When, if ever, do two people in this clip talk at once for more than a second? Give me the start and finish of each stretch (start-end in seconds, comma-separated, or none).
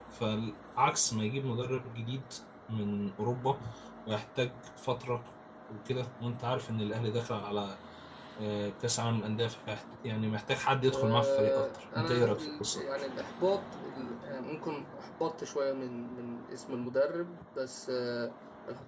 10.9-12.8